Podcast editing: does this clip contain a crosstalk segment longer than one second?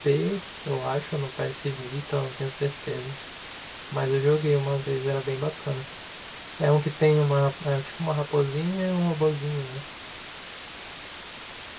No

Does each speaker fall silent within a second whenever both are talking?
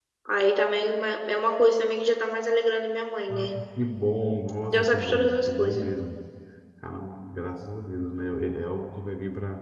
No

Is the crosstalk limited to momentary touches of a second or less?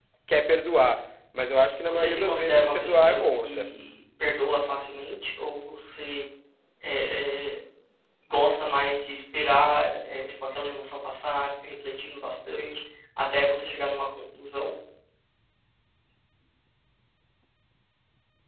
No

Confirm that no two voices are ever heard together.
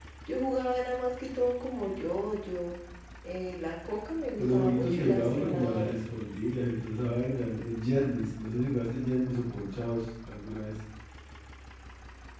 No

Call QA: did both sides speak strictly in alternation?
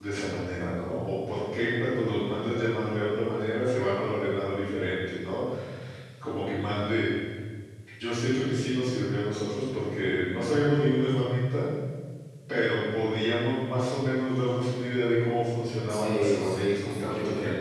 No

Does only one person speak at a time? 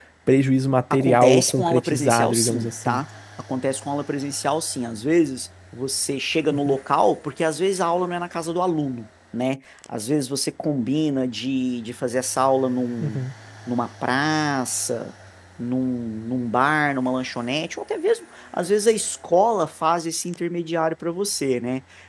No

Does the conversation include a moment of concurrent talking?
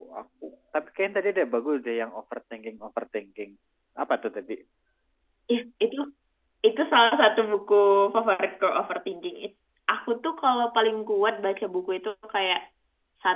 No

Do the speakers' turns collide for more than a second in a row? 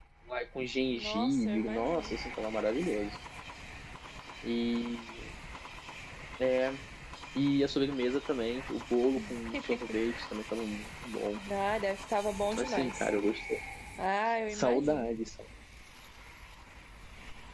Yes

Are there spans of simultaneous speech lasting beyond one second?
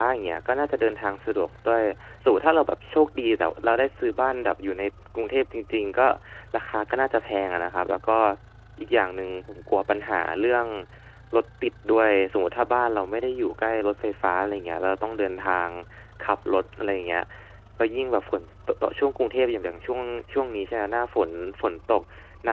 No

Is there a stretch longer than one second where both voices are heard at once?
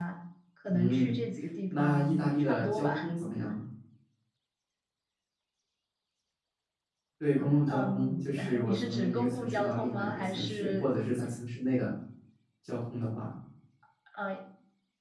Yes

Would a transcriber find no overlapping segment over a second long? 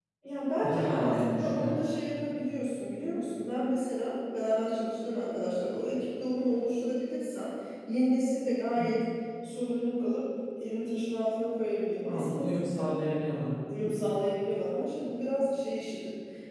No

